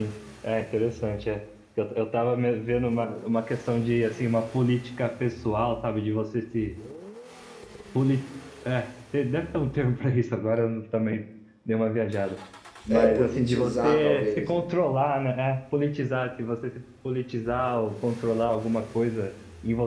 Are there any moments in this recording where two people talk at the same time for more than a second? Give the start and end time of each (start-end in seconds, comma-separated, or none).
12.9-14.6